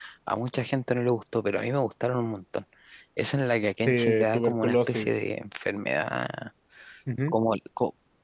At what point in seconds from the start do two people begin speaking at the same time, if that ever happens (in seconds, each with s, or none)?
3.9 s